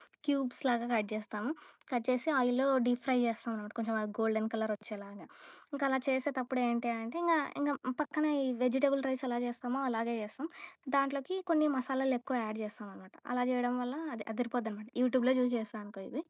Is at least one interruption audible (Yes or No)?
No